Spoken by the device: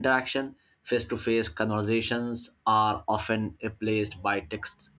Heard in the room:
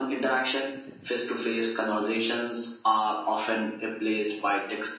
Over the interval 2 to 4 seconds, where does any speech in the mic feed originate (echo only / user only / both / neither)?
echo only